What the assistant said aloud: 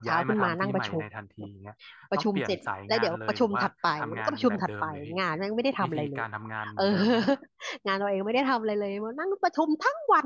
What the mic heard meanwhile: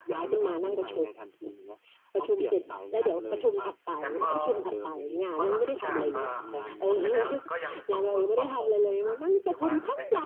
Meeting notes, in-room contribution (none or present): present